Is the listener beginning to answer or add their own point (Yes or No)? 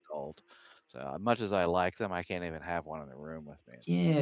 Yes